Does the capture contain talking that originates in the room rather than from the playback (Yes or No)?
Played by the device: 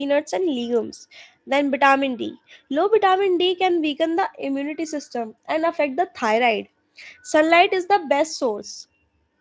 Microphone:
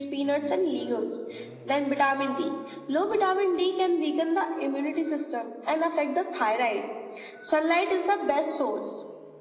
No